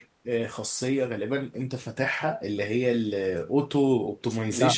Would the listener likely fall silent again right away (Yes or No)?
Yes